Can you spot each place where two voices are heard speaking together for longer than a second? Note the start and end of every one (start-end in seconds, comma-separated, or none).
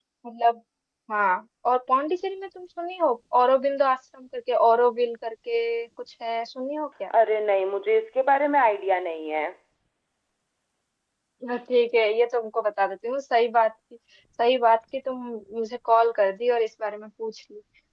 none